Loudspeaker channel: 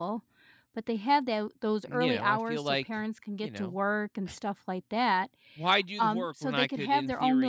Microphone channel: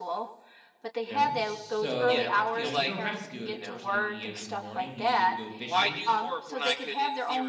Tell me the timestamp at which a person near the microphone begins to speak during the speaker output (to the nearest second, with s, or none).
1 s